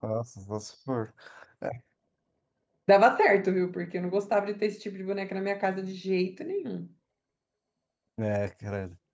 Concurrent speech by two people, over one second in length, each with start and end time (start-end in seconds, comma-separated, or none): none